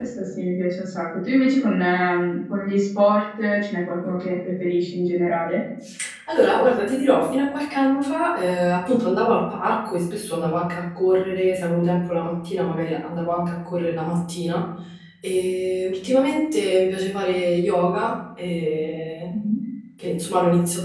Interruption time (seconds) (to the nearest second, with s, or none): none